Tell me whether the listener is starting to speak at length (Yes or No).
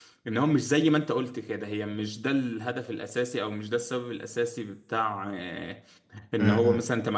No